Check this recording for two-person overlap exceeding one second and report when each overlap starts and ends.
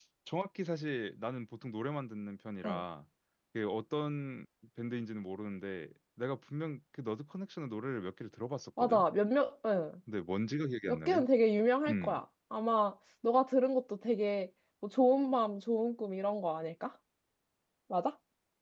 none

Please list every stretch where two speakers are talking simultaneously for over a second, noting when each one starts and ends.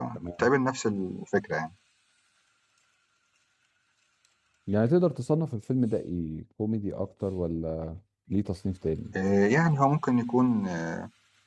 none

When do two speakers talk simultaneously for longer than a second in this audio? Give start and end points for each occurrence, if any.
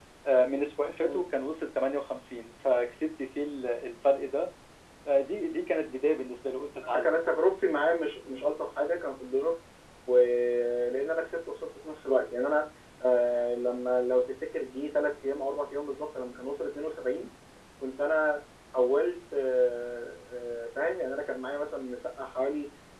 none

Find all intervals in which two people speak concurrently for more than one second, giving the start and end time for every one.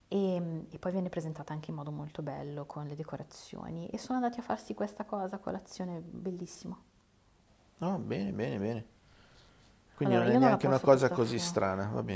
10.0-11.6

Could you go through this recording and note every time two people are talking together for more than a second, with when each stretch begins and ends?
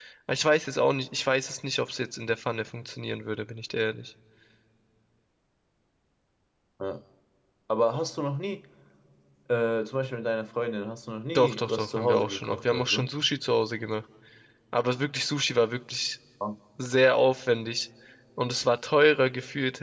11.3-13.1

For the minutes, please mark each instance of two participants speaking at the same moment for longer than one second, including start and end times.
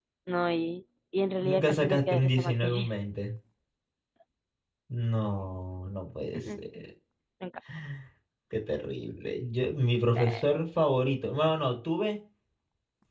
1.4-2.9

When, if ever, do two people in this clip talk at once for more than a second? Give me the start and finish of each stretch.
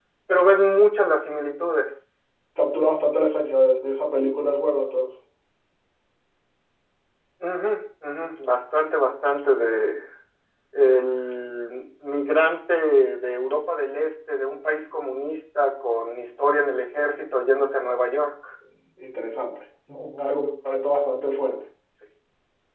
none

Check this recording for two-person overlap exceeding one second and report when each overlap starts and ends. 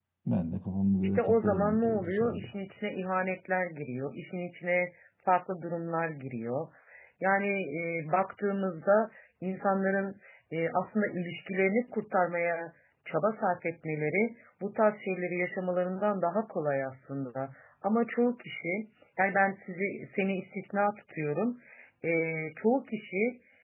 1.1-2.5

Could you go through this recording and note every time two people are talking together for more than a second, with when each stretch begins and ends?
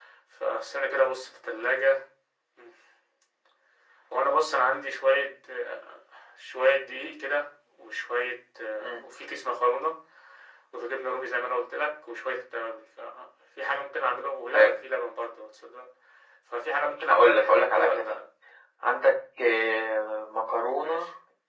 17.0-18.2

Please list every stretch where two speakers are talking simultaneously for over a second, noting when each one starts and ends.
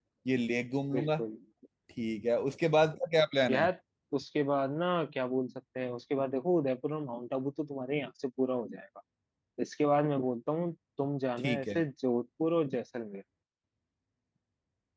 none

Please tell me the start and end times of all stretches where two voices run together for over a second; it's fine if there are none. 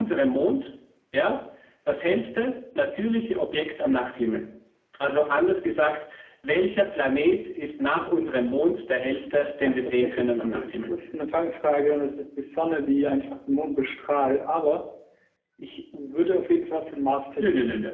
9.6-10.9

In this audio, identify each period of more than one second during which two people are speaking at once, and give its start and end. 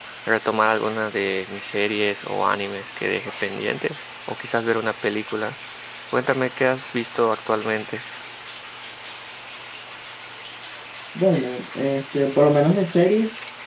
none

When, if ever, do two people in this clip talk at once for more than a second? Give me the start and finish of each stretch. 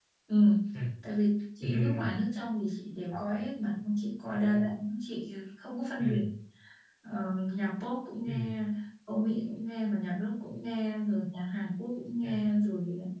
none

